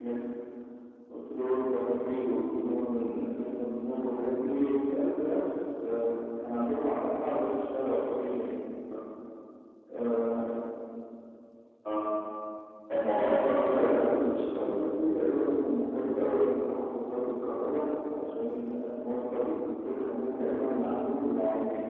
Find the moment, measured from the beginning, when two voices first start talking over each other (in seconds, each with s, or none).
13.2 s